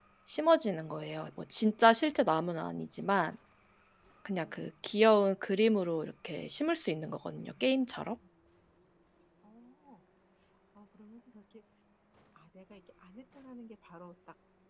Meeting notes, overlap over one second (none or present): none